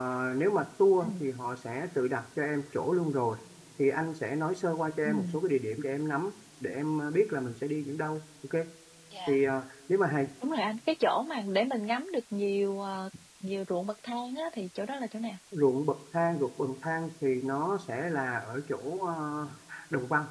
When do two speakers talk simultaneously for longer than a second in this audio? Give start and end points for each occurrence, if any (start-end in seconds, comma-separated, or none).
none